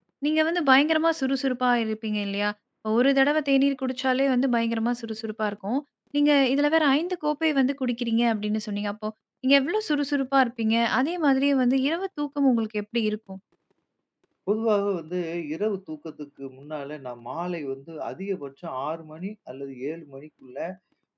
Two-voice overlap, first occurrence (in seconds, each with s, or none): none